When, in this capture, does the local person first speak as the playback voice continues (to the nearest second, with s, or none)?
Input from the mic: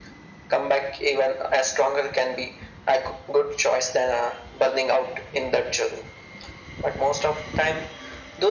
none